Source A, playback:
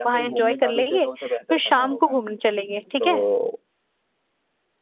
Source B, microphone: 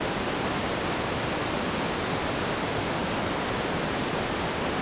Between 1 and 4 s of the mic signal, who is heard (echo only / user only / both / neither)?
neither